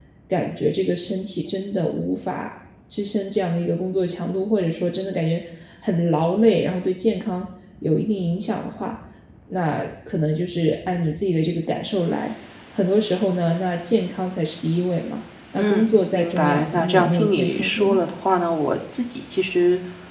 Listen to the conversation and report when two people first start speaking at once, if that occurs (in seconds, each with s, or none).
15.6 s